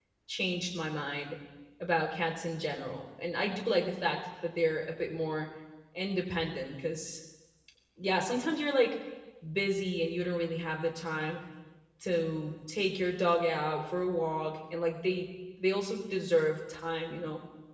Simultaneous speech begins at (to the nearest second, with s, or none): none